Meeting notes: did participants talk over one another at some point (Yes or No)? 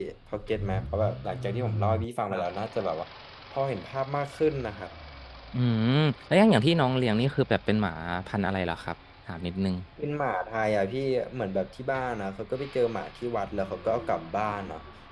No